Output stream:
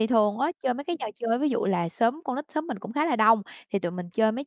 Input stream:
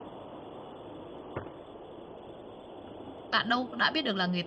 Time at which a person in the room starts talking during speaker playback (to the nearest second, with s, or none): 3 s